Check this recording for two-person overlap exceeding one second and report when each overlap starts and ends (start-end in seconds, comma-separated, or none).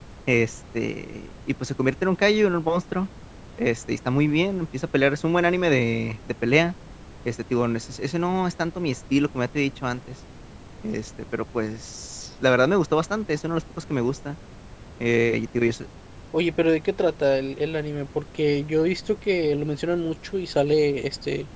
none